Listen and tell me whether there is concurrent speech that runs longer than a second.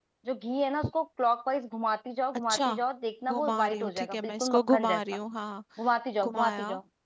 Yes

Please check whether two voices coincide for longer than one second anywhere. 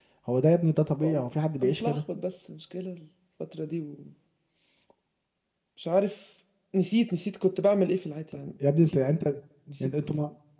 No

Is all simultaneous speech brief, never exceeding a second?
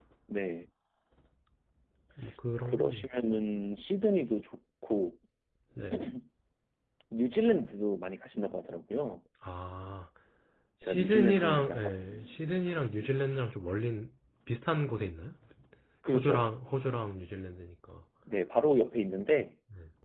No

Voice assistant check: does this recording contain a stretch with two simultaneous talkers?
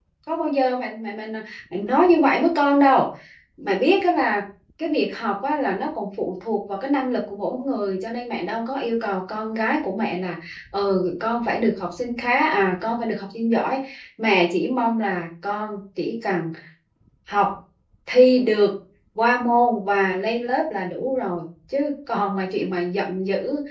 No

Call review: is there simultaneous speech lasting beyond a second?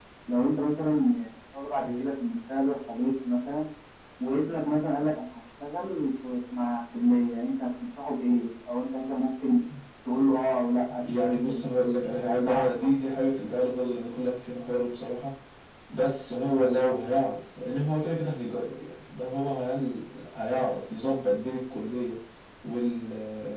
Yes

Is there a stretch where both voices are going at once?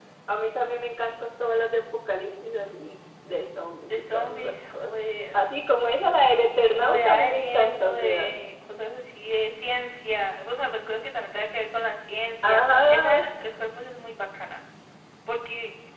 Yes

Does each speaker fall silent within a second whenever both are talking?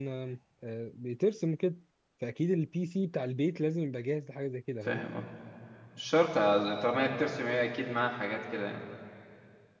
Yes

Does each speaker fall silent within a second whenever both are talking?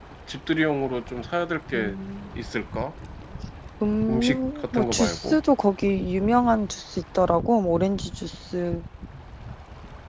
No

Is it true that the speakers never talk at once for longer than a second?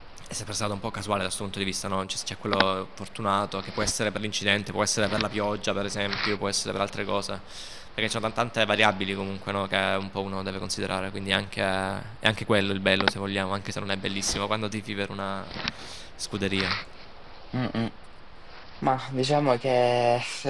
Yes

